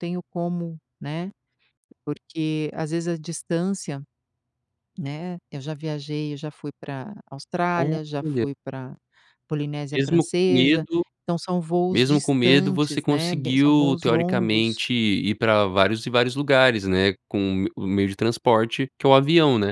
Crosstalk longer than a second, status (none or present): present